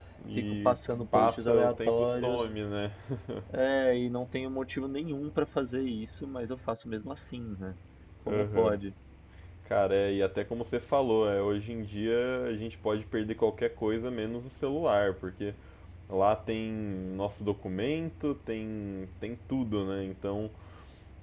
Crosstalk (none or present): present